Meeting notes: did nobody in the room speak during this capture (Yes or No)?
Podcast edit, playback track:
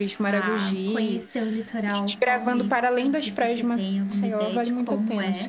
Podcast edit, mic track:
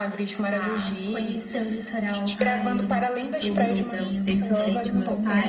No